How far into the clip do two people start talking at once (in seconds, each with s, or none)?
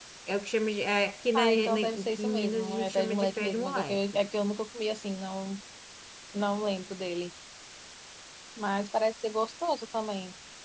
1.3 s